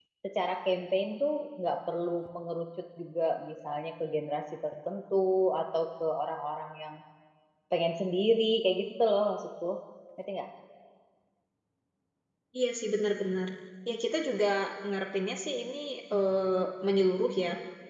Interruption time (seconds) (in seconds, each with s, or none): none